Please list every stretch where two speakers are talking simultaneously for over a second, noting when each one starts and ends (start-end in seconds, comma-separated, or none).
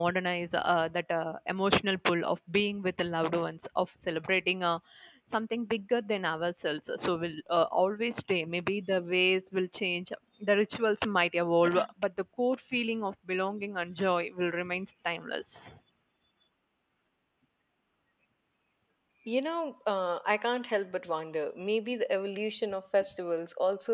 none